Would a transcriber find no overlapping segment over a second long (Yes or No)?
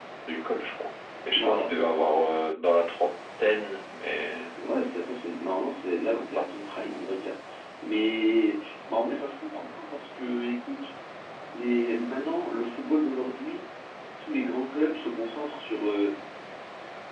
Yes